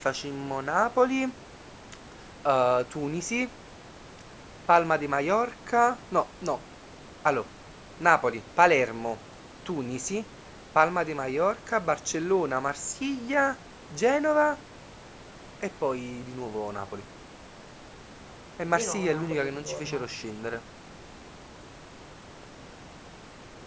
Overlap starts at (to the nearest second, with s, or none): 19 s